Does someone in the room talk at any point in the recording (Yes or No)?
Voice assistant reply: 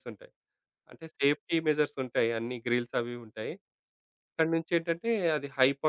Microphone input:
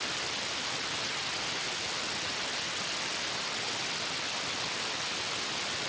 No